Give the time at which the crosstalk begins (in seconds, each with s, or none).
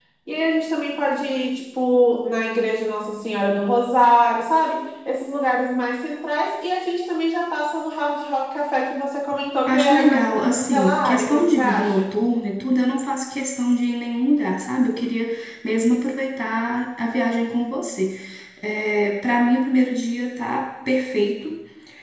9.7 s